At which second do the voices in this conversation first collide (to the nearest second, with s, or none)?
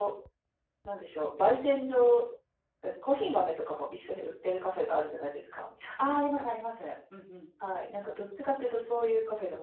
none